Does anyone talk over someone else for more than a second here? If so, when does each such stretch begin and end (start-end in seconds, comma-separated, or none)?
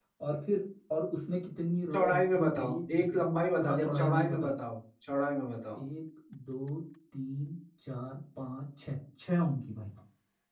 1.9-4.4